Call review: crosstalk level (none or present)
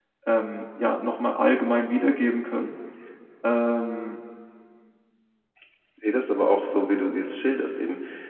none